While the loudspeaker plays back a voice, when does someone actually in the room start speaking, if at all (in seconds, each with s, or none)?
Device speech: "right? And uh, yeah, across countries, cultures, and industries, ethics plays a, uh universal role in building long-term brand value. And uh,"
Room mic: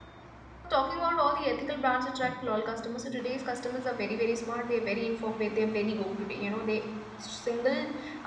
0.7 s